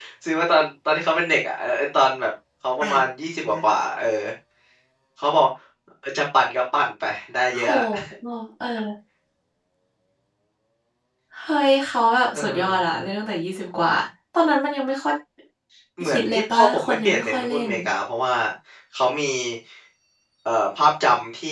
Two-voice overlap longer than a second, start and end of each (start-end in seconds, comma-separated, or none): 16.1-17.7